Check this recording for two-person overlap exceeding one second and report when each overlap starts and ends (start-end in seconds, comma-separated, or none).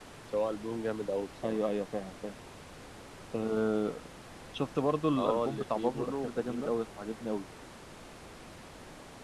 5.2-6.7